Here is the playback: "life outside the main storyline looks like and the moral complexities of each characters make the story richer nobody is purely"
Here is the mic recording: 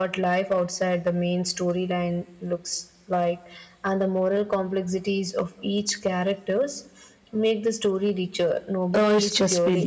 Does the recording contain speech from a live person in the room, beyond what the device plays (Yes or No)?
Yes